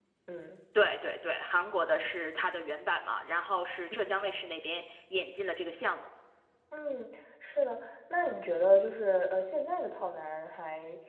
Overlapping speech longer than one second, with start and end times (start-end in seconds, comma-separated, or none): none